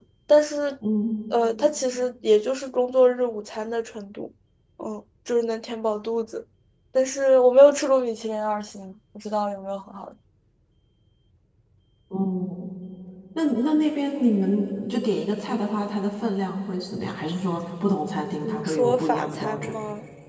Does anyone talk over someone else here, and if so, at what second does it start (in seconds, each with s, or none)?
18.4 s